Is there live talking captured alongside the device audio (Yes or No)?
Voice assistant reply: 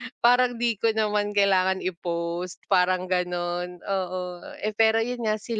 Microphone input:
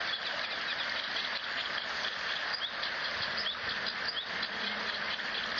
No